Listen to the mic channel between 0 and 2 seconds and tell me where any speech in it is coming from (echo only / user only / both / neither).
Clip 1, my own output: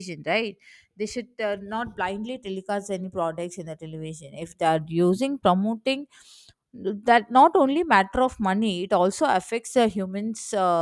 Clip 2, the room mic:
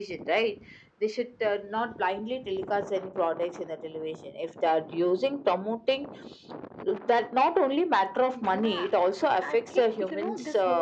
echo only